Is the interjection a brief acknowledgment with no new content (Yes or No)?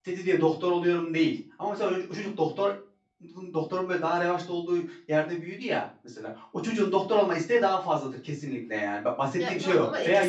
No